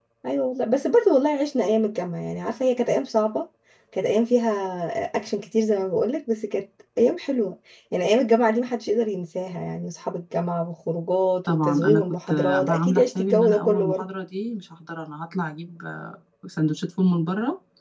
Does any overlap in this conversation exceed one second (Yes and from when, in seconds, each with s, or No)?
Yes, from 11.5 s